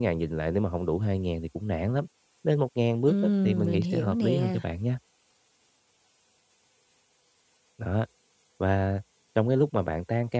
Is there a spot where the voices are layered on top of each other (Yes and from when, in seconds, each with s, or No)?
Yes, from 3.1 s